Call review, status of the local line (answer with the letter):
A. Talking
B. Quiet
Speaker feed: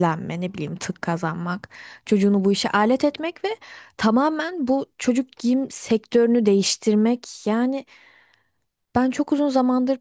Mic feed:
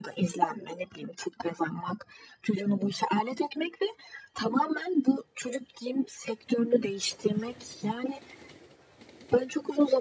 B